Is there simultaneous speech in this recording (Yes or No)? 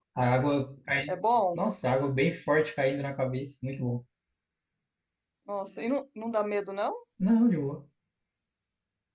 No